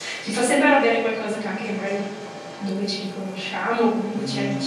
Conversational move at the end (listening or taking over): taking over